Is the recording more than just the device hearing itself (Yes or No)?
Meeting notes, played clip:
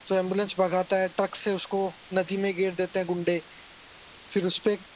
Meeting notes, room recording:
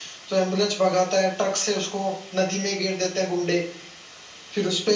No